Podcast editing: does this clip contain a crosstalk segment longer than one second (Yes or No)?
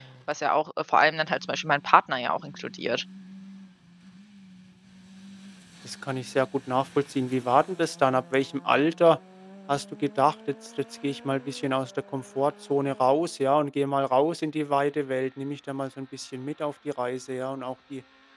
No